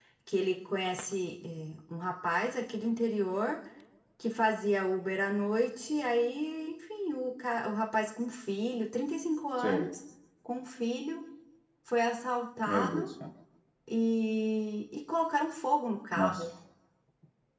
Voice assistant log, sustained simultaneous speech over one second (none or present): none